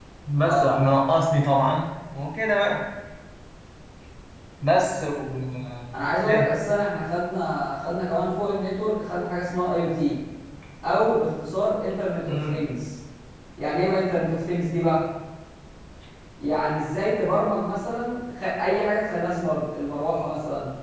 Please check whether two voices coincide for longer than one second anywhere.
No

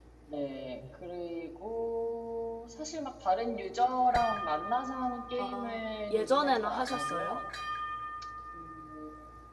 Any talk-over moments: Yes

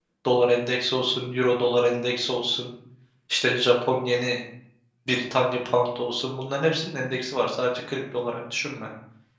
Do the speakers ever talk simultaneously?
No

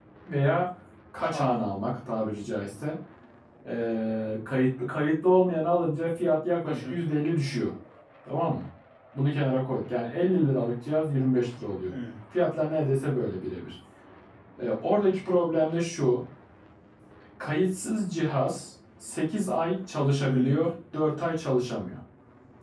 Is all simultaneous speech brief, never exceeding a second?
Yes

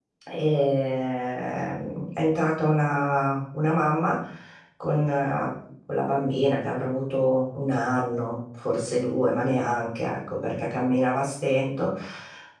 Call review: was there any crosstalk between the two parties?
No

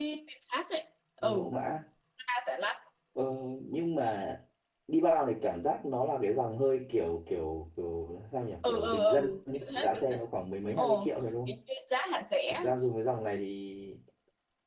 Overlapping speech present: Yes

